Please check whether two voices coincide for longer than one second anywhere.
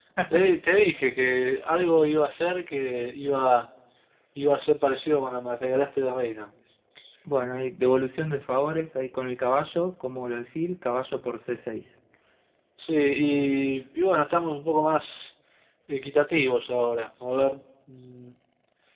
No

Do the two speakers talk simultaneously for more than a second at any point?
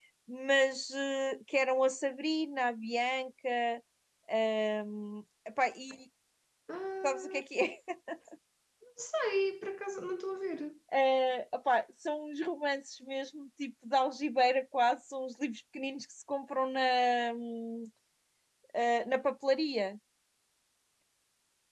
No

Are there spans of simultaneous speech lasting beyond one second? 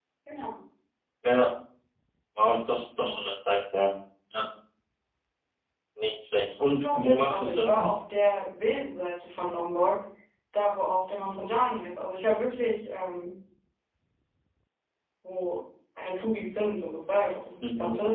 Yes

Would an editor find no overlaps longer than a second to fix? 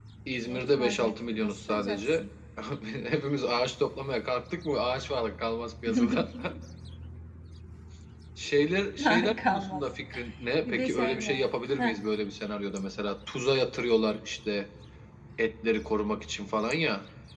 No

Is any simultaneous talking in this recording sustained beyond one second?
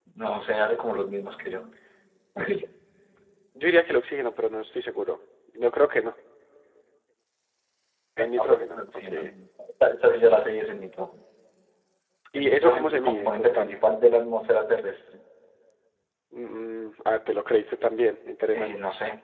Yes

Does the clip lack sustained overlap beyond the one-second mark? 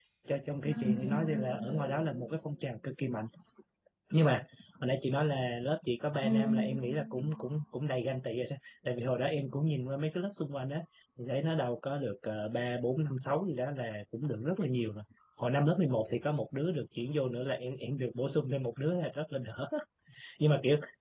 No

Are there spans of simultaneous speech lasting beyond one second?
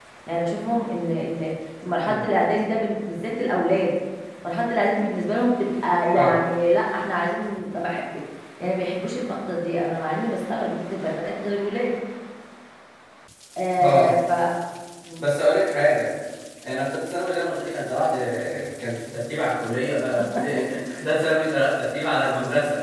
No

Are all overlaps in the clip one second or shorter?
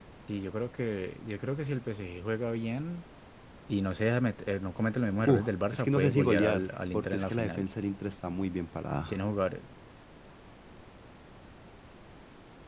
No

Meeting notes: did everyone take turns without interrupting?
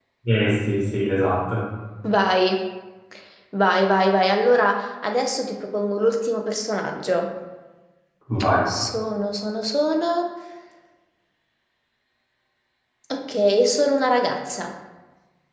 Yes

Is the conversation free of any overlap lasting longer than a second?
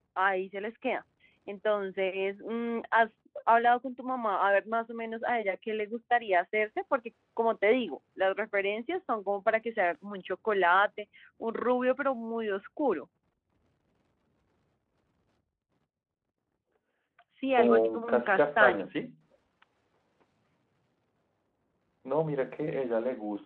No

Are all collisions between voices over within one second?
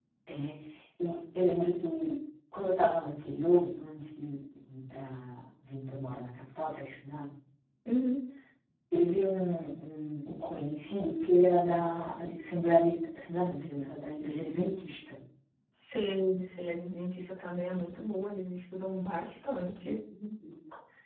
Yes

